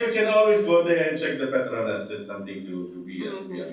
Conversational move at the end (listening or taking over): taking over